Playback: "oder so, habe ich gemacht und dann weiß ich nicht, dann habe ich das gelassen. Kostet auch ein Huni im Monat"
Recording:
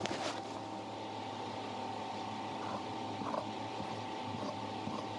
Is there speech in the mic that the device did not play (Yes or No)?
No